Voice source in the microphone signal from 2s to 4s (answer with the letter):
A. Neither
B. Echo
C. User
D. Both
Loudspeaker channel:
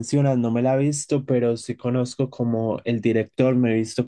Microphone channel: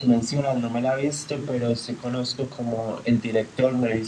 B